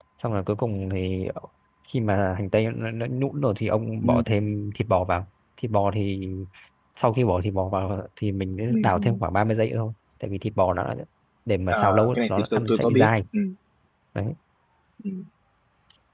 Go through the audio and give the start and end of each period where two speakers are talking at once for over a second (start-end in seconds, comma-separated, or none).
11.7-13.1